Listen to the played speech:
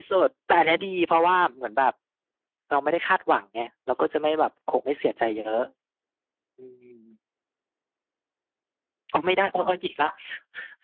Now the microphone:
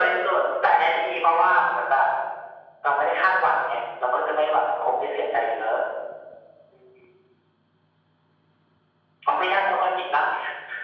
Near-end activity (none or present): none